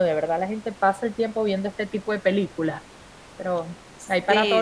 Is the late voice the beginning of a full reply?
Yes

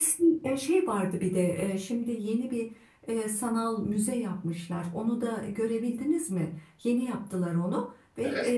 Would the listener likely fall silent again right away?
Yes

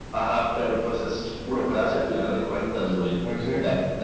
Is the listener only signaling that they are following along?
Yes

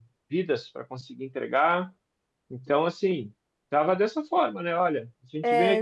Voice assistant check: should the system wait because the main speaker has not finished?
Yes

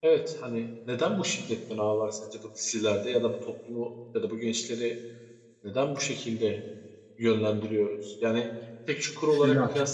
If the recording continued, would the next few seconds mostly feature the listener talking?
No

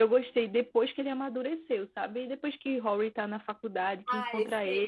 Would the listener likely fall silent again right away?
No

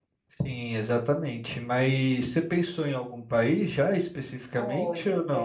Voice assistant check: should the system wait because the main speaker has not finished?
No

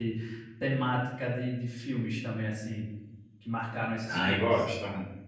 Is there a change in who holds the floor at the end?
Yes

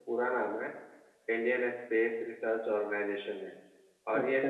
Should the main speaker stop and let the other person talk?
No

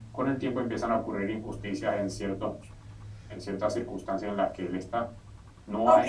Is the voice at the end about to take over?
Yes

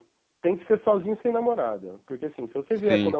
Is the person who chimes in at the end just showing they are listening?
Yes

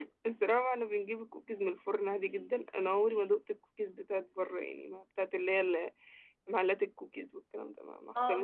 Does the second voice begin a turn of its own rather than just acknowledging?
Yes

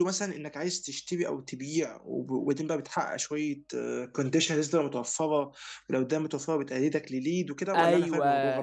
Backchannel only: No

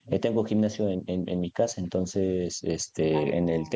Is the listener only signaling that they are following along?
Yes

